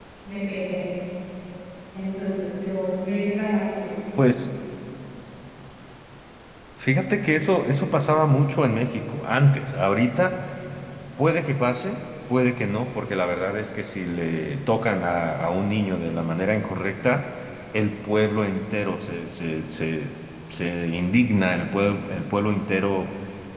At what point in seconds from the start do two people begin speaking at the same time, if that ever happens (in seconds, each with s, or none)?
none